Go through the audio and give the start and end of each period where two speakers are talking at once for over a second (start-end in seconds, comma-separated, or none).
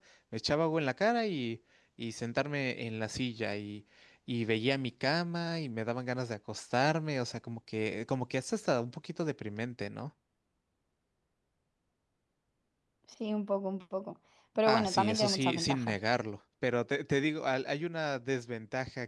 14.7-16.0